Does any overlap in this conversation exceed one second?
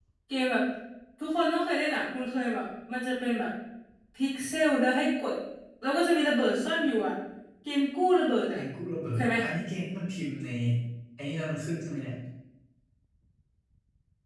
No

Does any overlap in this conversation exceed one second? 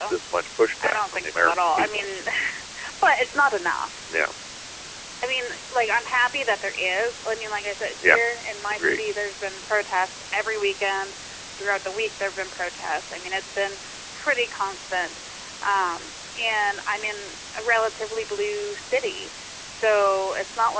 Yes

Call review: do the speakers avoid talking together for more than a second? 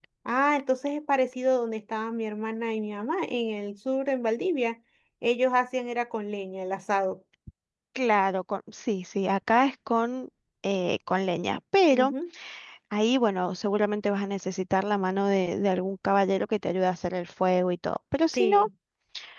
Yes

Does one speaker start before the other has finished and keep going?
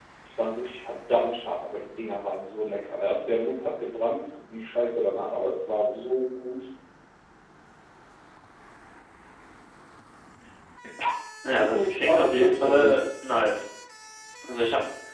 Yes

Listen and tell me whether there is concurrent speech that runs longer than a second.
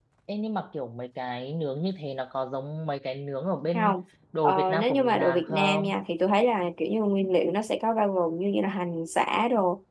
Yes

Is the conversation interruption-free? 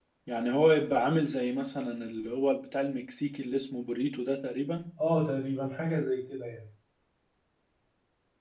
Yes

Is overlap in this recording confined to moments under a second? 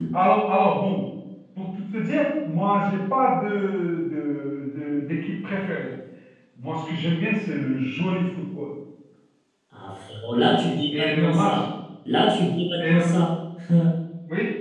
No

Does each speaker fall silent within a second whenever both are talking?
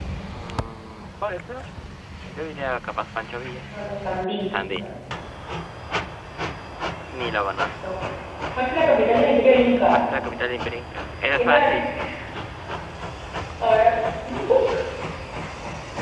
Yes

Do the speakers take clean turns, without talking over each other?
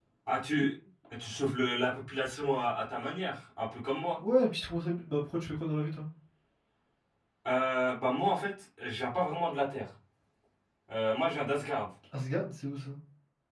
Yes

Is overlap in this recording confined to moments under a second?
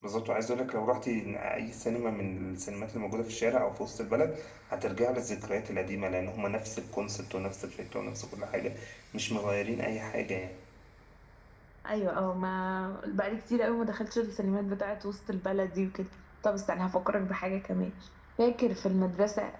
Yes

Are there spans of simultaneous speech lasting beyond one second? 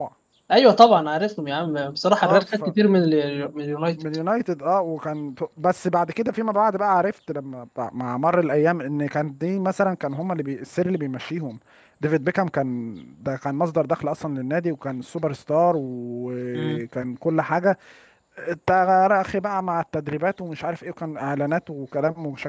No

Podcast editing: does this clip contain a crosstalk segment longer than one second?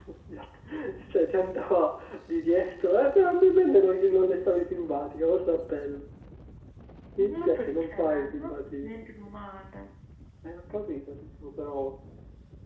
Yes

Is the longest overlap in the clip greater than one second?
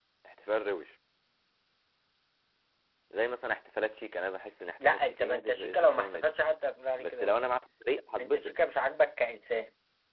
Yes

